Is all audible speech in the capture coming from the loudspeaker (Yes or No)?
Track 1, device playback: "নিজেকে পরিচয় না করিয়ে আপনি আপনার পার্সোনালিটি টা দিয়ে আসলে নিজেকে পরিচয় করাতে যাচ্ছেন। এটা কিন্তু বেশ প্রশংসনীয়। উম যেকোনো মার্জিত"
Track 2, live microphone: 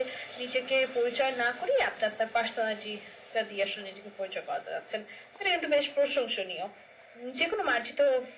Yes